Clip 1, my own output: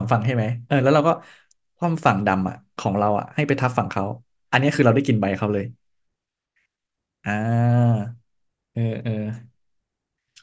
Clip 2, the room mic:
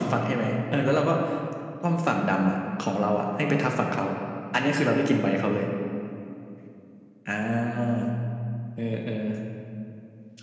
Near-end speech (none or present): none